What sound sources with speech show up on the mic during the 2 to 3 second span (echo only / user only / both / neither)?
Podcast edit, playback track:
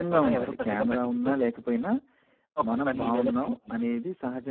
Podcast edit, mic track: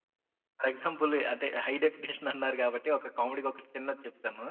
user only